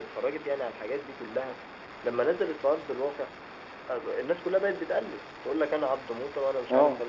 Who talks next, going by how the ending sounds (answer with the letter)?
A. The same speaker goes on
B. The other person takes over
A